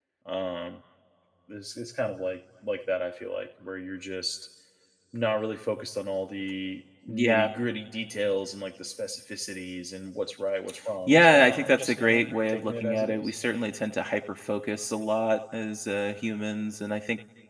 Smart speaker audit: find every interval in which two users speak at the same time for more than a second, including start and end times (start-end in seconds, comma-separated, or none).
11.1-13.3